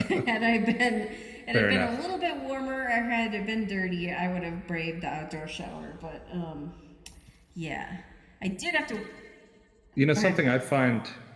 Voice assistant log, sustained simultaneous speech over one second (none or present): none